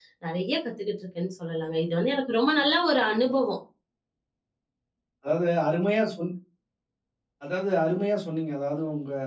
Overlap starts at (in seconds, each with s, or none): none